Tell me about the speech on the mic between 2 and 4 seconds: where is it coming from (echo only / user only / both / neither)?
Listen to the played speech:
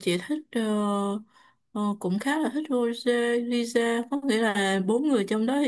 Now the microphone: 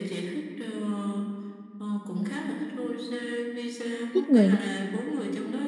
echo only